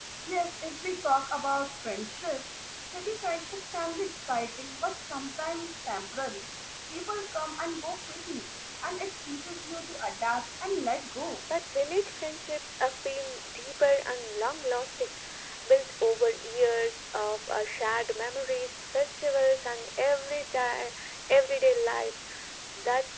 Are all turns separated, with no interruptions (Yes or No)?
Yes